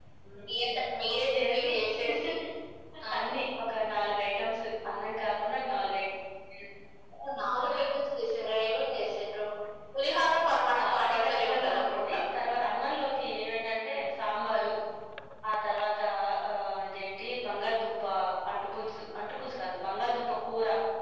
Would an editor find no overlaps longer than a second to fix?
No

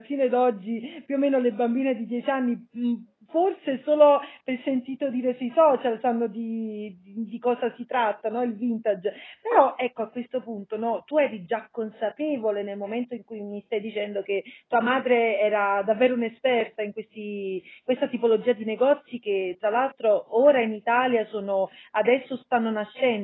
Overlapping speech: No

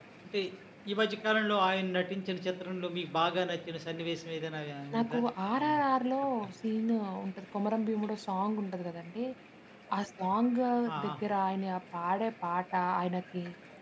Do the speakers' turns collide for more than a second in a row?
No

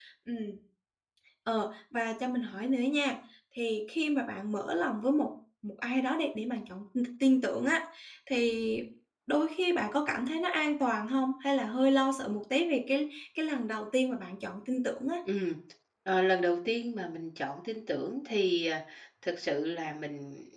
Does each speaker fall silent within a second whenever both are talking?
Yes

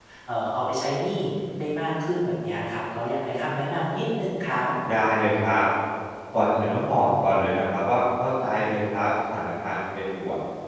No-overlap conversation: Yes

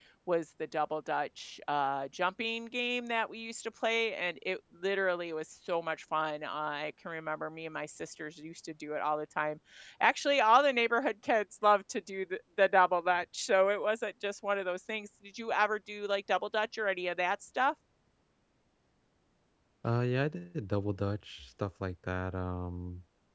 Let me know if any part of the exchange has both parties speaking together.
No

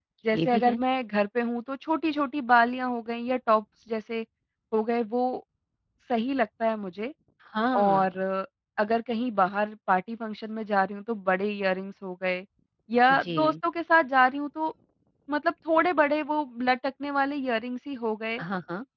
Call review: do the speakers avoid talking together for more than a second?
Yes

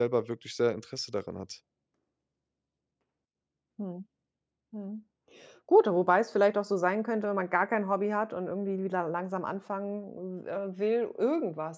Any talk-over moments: No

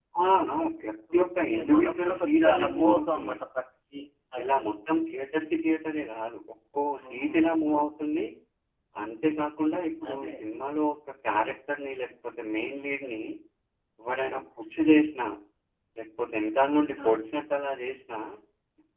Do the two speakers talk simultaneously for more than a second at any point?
Yes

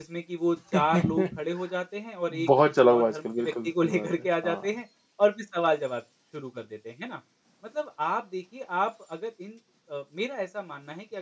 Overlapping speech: Yes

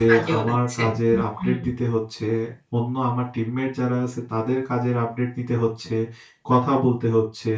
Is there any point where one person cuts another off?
Yes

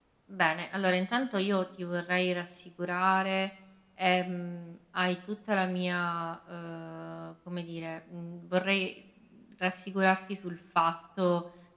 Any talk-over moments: No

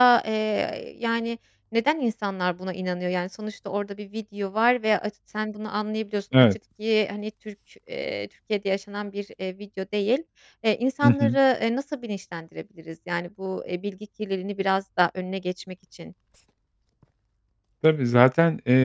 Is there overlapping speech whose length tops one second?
No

